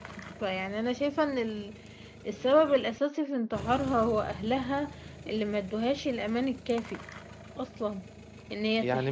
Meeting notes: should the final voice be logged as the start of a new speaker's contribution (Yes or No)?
Yes